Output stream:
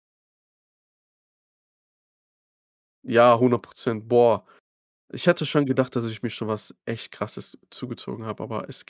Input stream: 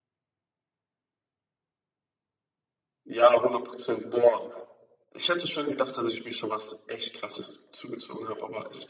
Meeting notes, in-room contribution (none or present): none